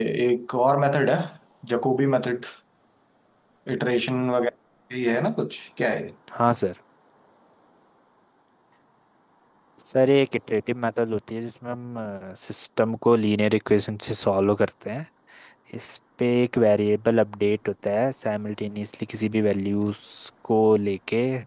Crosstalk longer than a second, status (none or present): none